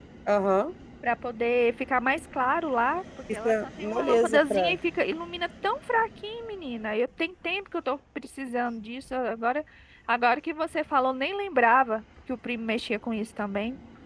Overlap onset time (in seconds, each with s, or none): 3.4 s